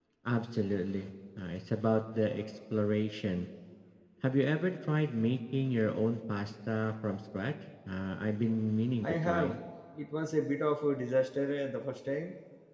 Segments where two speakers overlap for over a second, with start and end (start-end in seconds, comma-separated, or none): none